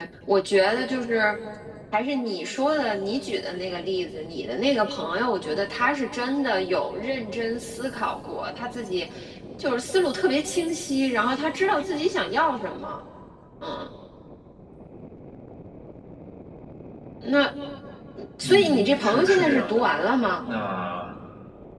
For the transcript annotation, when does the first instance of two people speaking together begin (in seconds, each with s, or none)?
18.4 s